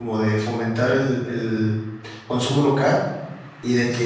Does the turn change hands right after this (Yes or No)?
No